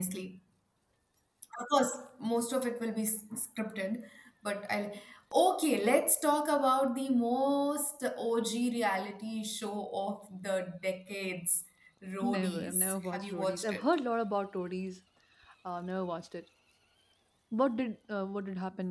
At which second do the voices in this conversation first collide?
12.3 s

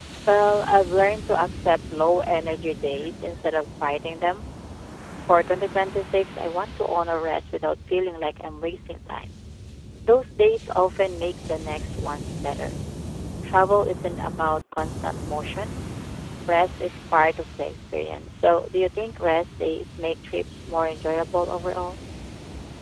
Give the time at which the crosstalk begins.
none

